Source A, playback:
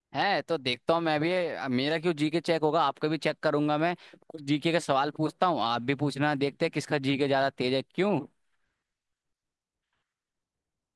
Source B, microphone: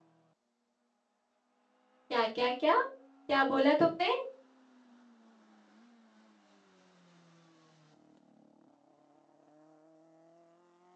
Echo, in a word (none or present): none